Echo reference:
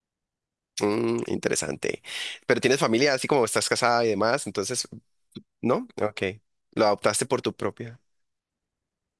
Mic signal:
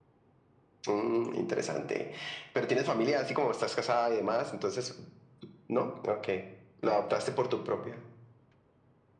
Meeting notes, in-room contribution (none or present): none